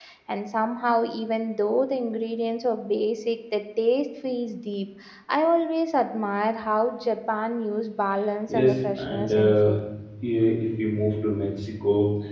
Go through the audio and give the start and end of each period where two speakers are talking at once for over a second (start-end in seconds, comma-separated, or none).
8.5-9.8